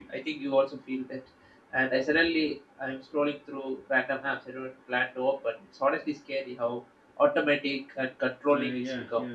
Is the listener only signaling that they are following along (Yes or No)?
No